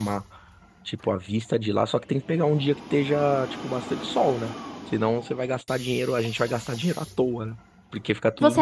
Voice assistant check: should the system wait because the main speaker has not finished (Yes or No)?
No